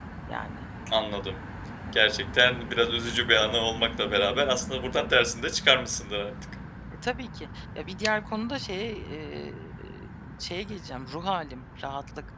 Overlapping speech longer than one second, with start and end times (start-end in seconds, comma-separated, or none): none